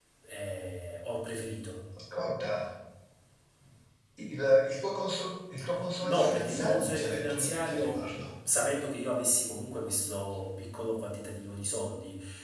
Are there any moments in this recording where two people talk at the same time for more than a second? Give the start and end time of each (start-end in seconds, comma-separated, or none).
6.0-8.1